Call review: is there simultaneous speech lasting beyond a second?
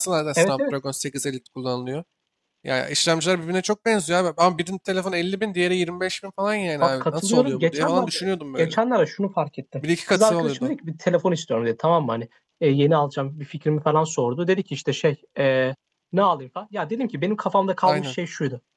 Yes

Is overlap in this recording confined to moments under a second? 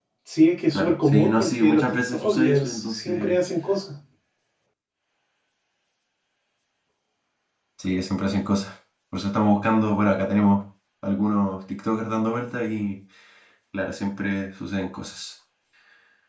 No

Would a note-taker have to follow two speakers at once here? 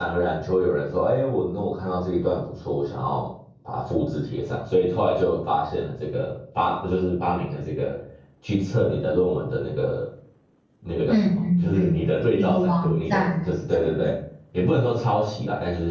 Yes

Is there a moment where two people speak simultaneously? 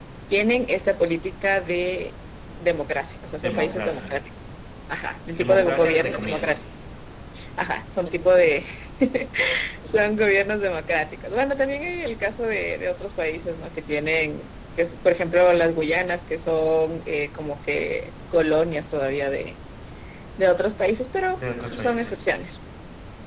Yes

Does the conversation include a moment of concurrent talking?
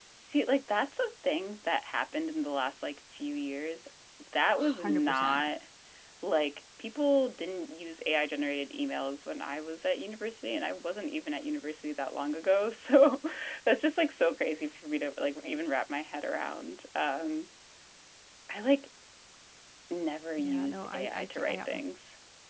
Yes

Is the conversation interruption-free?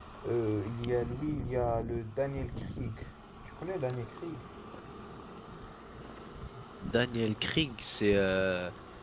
Yes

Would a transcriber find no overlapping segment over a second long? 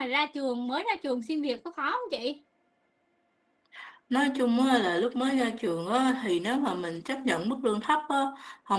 Yes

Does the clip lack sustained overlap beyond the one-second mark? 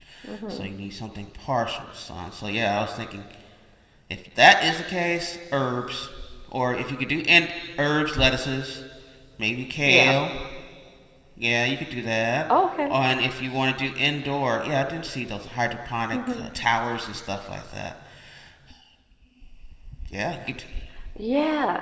Yes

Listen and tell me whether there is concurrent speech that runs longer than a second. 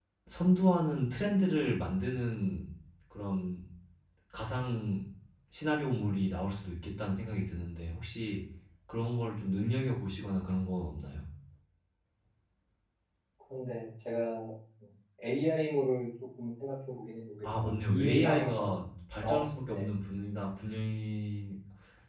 Yes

